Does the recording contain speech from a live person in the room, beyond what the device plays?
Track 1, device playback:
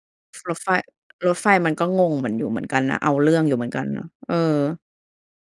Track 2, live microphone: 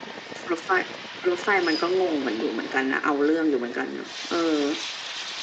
No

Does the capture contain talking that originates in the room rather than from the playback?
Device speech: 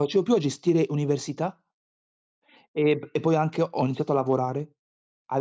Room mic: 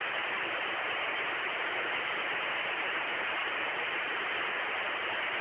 No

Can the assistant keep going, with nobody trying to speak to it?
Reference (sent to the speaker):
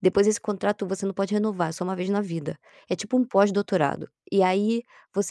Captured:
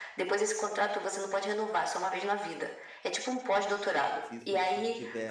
No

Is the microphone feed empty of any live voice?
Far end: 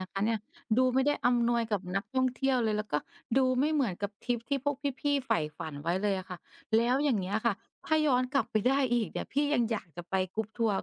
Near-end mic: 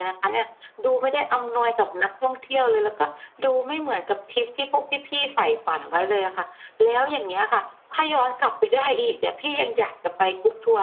Yes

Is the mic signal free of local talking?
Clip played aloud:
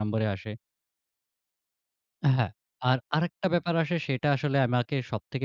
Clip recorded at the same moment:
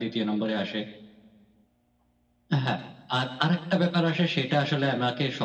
Yes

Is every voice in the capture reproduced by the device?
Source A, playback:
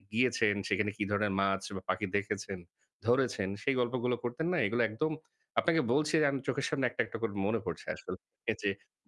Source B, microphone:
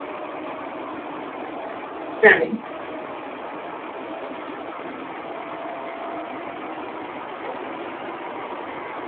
No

